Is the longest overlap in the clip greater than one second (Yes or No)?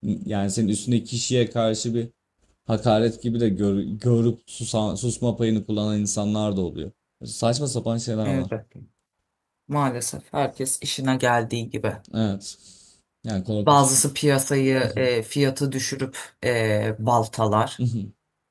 No